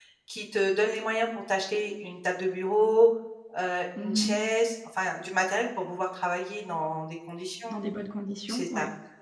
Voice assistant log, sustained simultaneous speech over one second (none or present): none